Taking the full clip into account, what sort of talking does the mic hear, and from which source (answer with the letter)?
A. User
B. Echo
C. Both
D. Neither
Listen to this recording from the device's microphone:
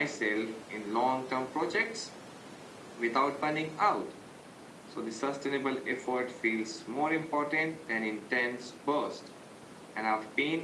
B